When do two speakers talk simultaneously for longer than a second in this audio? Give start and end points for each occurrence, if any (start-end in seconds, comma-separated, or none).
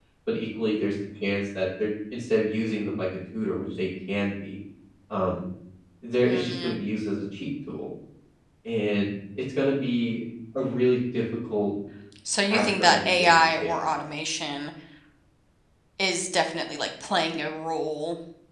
12.4-14.0